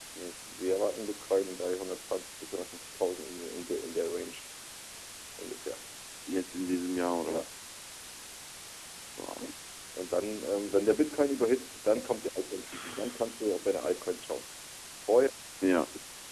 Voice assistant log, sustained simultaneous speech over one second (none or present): none